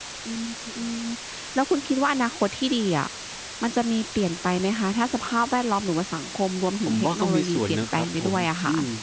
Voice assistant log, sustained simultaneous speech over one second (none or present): present